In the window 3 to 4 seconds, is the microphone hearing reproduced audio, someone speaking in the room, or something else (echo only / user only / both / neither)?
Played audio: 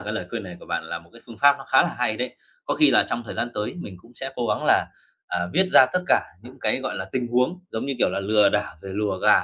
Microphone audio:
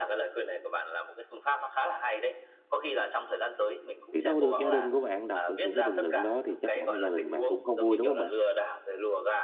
echo only